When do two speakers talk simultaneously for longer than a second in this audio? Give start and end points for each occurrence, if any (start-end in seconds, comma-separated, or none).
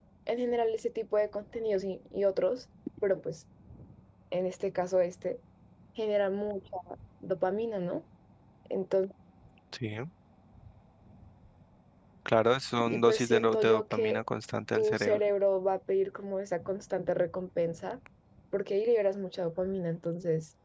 12.8-14.2